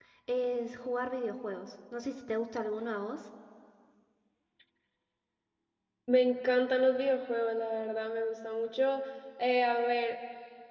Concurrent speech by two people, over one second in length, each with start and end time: none

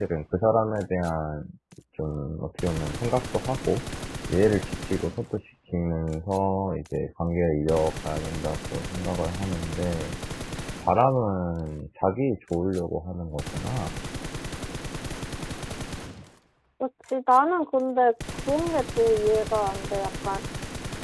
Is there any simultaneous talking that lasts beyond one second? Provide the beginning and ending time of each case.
none

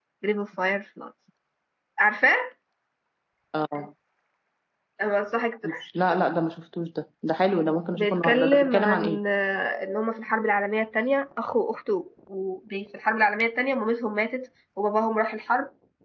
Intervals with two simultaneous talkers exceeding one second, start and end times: 8.0-9.2

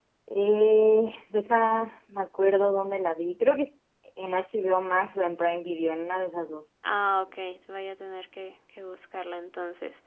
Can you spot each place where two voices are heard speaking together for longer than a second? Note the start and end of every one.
none

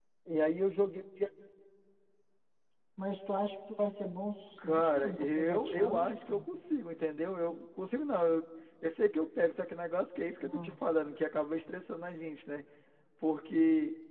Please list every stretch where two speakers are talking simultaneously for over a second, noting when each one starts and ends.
4.6-6.4

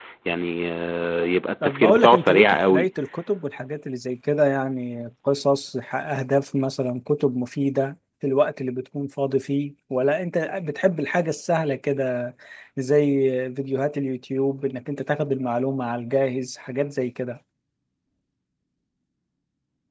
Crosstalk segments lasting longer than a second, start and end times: 1.6-2.9

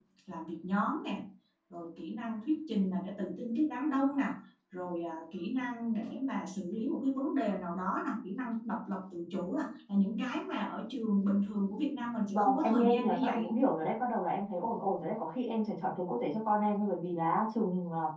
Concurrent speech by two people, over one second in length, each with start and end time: 12.3-13.5

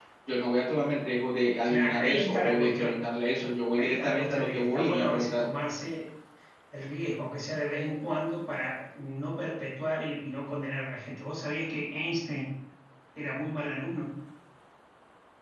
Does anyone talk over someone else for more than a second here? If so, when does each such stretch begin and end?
1.6-3.1, 3.7-5.5

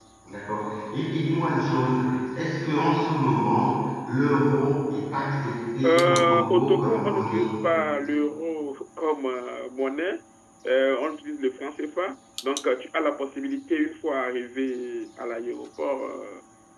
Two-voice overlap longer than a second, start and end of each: 5.8-7.5

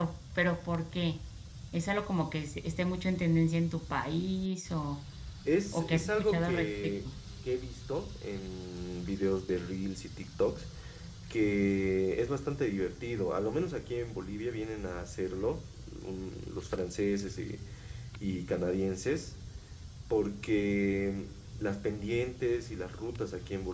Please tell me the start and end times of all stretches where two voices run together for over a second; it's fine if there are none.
5.7-7.0

